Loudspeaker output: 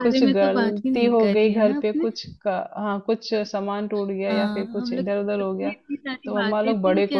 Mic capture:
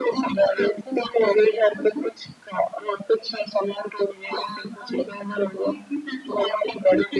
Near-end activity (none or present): none